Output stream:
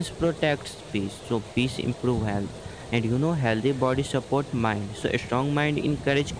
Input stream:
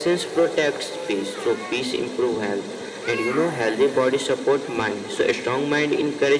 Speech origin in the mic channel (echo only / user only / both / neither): echo only